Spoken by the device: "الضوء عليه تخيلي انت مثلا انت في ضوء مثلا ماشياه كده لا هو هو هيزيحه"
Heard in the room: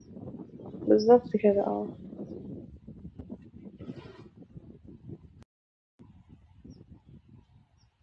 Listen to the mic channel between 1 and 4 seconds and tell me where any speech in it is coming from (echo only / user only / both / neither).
user only